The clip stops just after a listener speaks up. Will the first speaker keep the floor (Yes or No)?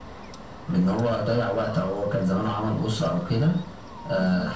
Yes